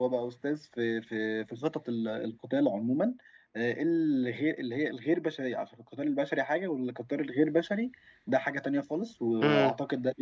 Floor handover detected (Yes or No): No